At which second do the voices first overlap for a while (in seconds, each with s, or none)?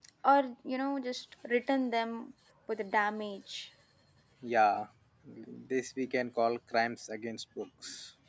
none